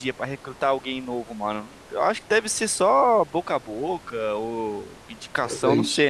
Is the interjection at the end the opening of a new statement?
No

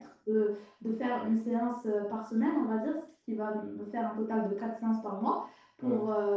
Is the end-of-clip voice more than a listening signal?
No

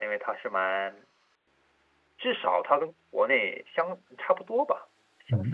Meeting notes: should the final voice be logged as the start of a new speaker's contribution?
Yes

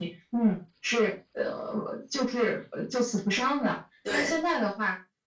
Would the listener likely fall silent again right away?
Yes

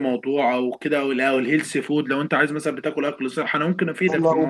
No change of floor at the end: No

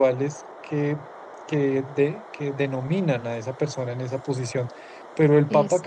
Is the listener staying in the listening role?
Yes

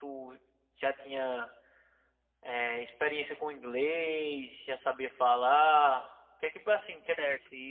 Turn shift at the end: Yes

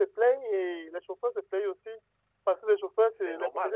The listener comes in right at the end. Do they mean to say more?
No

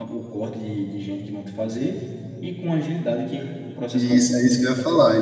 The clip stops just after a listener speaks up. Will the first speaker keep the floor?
No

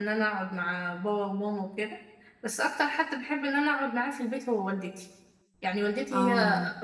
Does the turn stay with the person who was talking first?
Yes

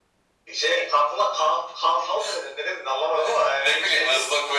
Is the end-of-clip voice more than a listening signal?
Yes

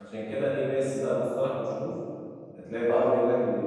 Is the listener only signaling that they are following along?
Yes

